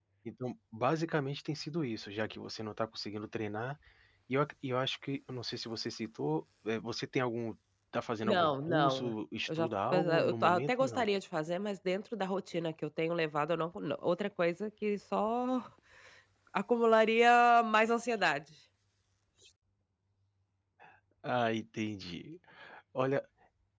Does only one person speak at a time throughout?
No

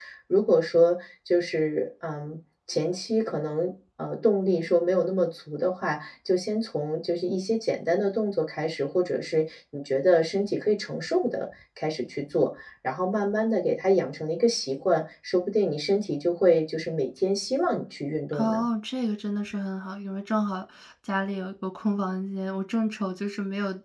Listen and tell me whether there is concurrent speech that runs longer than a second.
No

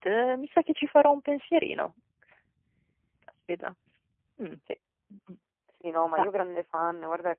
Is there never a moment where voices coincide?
Yes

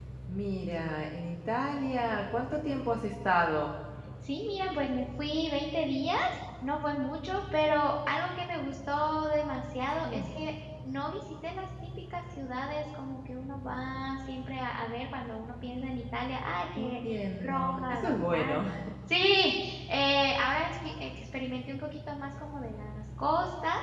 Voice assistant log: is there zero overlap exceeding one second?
No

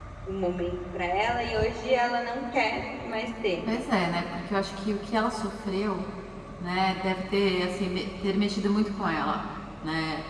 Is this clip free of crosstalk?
Yes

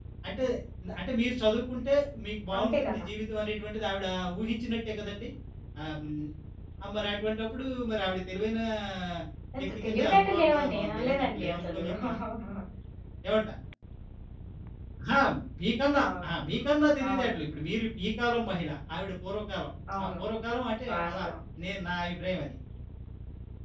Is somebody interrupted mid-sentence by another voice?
Yes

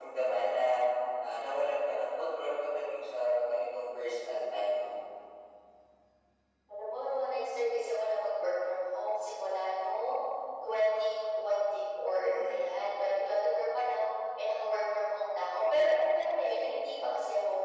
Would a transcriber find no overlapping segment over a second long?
Yes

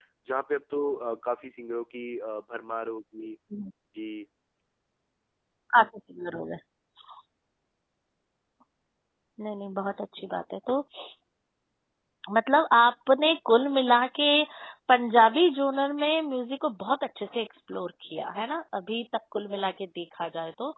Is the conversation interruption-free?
Yes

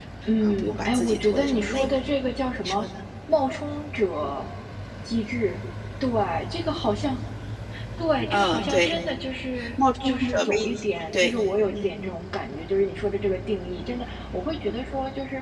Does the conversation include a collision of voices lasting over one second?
Yes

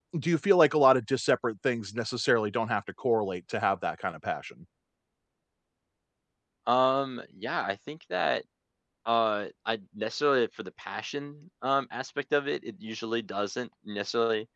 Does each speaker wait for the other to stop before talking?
Yes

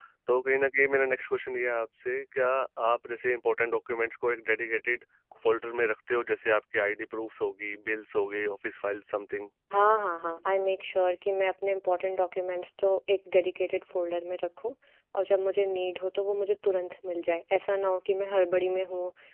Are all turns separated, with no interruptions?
Yes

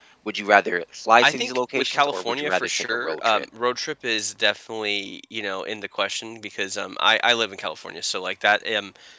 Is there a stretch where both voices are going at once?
Yes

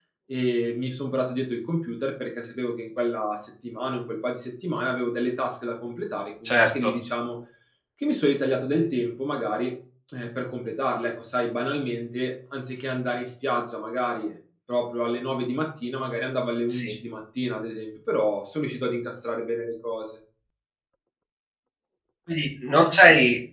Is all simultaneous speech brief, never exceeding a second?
Yes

